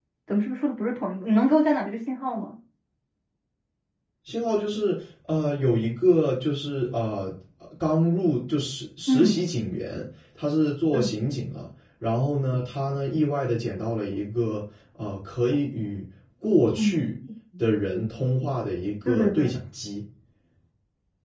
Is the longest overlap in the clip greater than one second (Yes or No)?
No